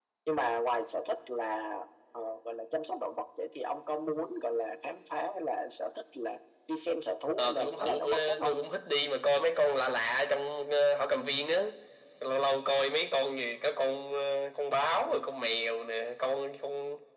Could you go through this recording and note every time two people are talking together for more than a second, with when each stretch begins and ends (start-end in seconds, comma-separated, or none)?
7.4-8.6